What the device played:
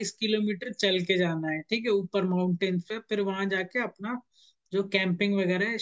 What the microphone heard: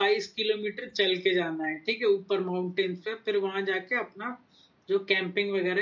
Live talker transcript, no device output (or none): none